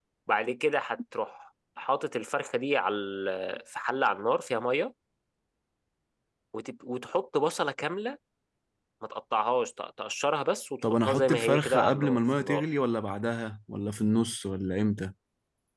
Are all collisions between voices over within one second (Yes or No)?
No